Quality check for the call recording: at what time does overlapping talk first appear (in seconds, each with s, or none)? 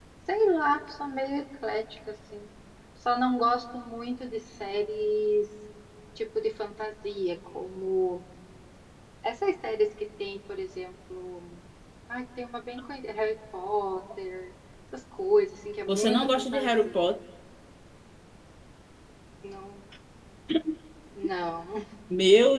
15.9 s